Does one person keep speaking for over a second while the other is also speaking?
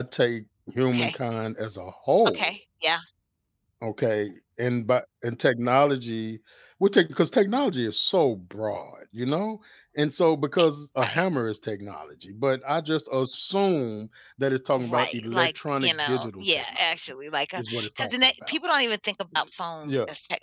Yes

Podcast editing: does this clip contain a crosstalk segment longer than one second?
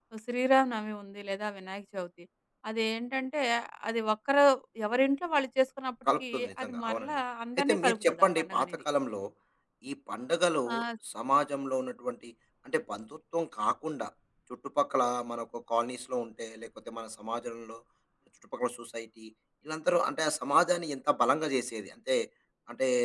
Yes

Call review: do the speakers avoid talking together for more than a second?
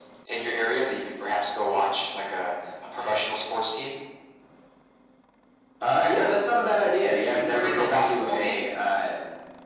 No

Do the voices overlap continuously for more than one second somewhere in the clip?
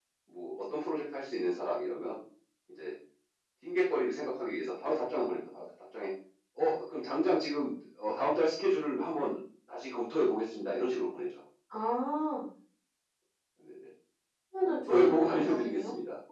Yes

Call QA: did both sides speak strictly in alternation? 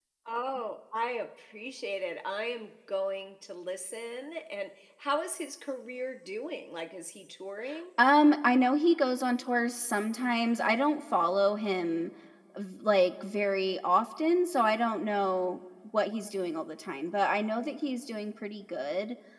Yes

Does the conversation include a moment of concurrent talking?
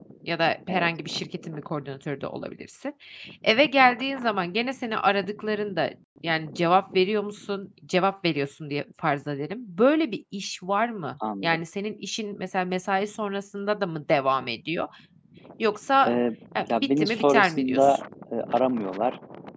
Yes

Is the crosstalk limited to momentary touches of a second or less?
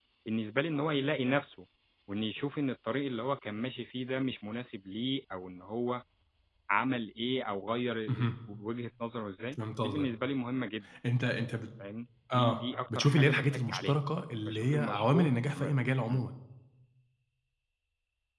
No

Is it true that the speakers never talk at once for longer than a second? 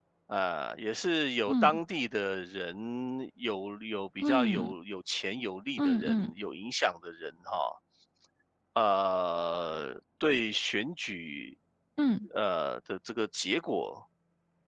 Yes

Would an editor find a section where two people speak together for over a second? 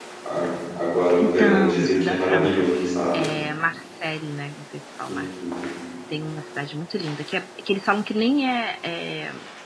Yes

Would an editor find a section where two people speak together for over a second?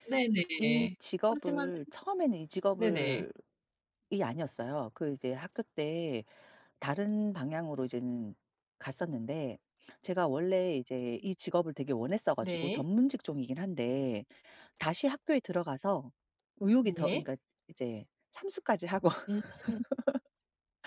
No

